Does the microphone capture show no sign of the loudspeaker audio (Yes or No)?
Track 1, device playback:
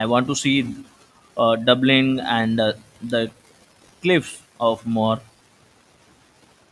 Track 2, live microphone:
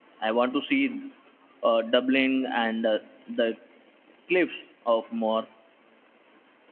No